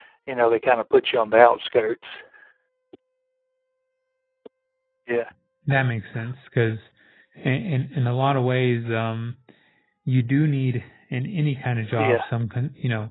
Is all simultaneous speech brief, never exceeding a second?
Yes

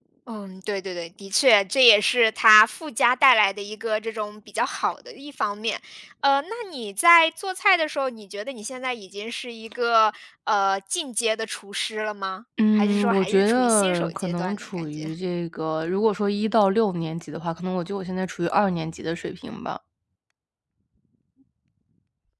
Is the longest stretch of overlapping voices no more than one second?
No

